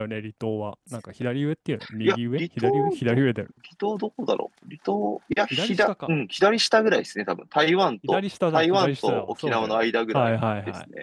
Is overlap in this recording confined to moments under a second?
No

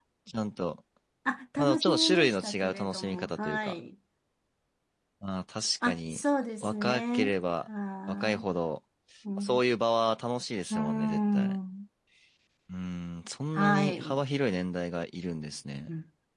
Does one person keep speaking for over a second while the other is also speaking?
Yes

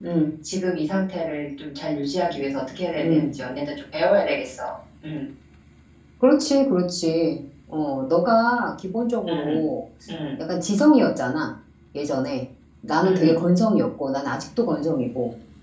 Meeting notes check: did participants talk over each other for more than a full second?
No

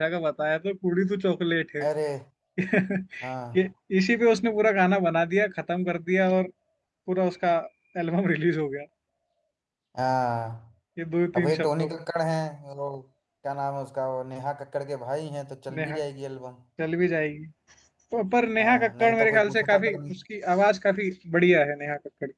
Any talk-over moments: Yes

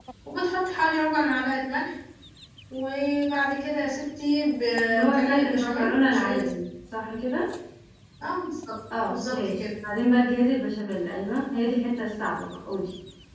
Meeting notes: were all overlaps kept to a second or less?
No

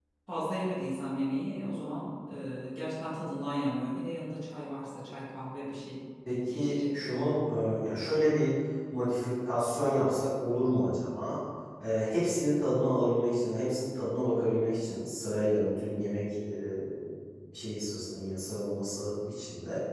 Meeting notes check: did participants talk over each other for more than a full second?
No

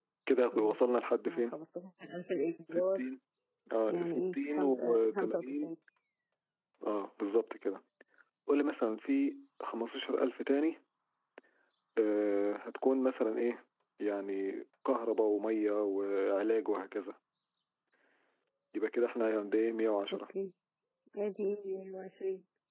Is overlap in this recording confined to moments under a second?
No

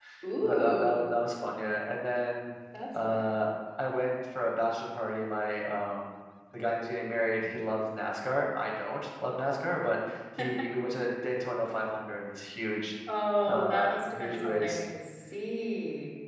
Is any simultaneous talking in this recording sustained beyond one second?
Yes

